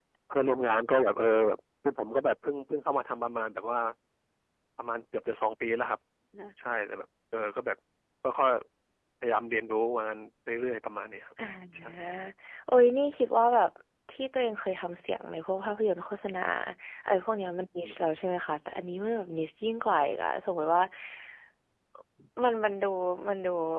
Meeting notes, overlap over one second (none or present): none